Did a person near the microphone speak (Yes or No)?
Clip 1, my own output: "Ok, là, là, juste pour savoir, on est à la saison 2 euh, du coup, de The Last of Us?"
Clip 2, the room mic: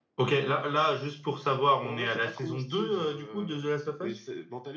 Yes